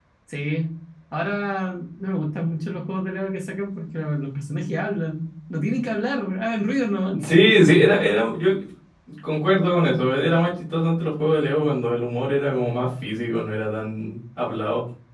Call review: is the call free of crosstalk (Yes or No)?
Yes